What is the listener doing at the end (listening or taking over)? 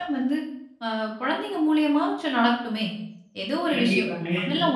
listening